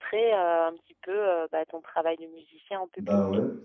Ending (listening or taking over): taking over